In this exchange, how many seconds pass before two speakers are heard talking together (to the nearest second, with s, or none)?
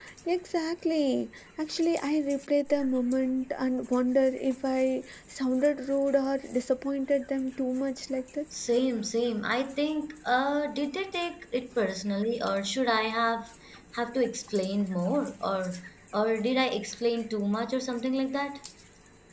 none